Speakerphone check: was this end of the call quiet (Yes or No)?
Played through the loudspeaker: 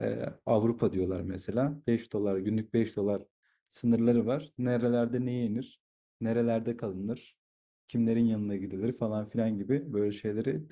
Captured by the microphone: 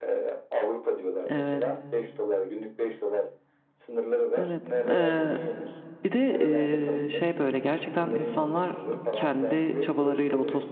No